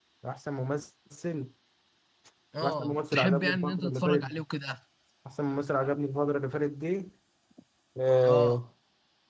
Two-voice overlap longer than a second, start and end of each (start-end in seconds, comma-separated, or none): 2.6-4.4